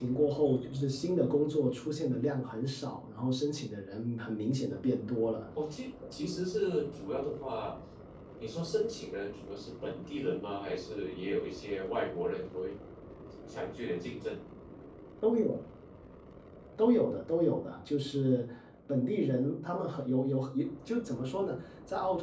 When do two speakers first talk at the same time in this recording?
none

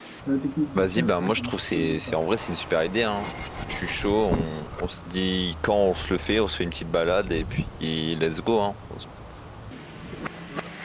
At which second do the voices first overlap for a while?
1 s

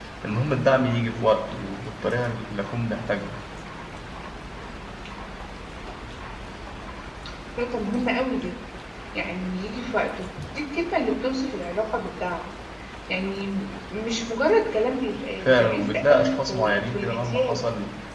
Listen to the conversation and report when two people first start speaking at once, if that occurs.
15 s

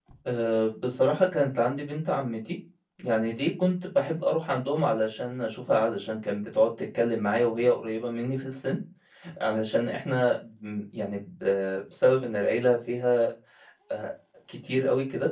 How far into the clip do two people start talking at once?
none

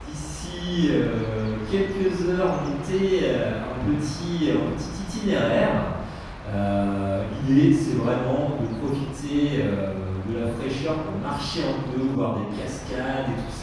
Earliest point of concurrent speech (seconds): none

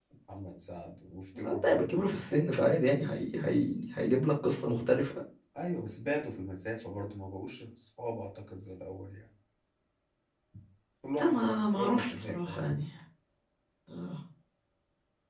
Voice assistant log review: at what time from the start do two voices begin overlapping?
1 s

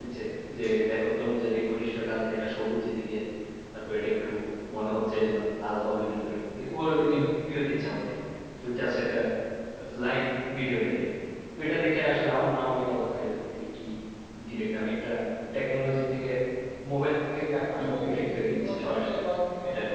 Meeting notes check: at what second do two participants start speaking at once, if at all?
18 s

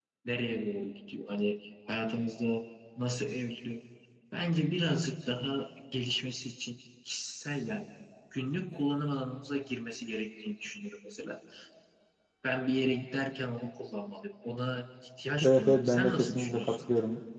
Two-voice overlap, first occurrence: 15 s

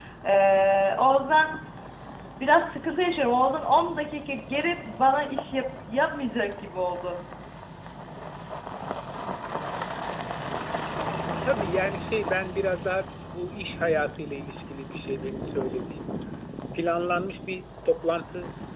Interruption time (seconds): none

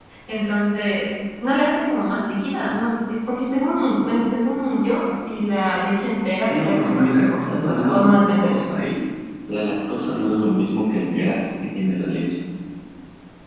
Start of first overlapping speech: 6 s

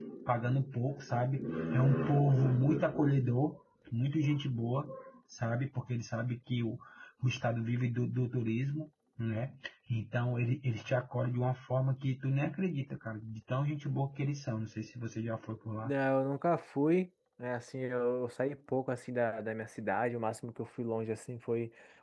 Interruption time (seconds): none

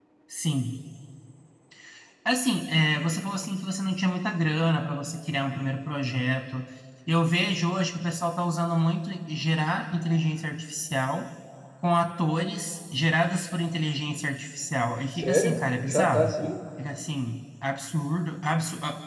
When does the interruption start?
15 s

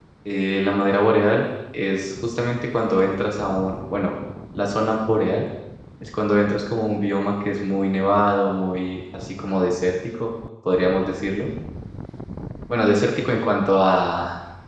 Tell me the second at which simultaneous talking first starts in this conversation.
none

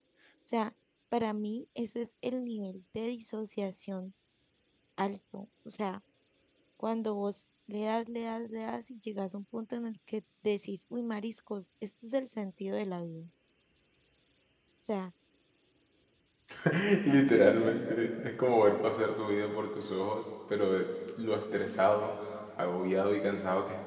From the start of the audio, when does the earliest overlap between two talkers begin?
none

